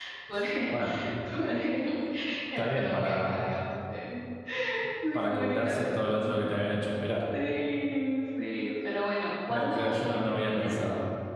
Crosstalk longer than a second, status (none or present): present